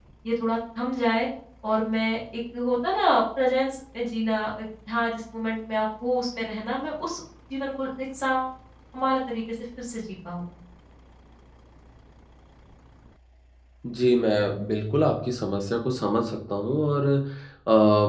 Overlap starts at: none

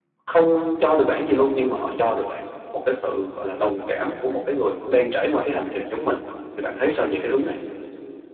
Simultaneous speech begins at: none

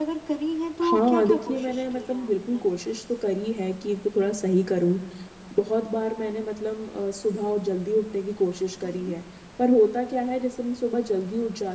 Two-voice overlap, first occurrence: 1 s

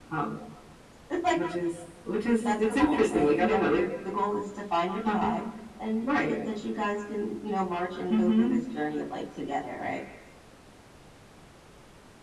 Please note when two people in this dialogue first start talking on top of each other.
2 s

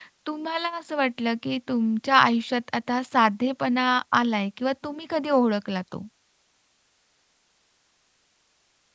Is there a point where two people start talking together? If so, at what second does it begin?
none

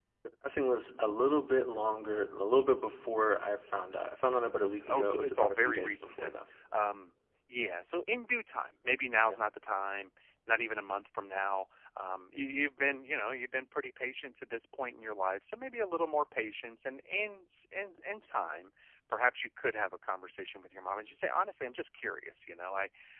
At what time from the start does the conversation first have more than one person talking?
5 s

